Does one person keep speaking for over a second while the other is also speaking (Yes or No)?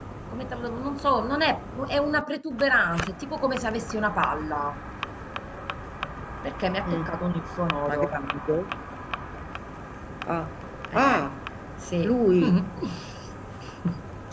No